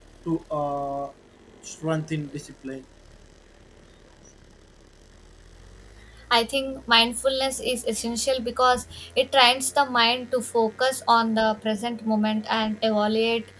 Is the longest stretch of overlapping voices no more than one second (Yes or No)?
Yes